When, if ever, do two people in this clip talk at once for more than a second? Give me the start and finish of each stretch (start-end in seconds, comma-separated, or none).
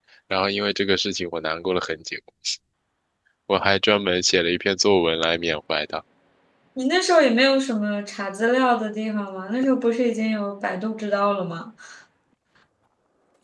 none